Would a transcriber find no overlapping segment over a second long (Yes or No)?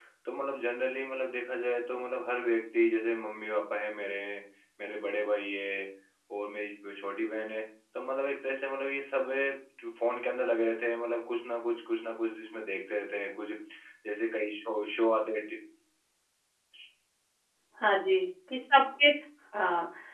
Yes